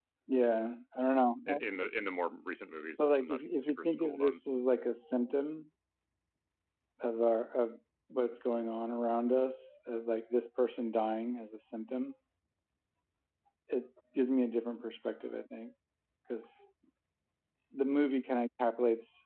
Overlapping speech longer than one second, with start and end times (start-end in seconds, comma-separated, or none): 3.0-4.4